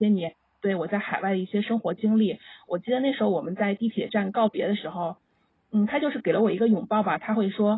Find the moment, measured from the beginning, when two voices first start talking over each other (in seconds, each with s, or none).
none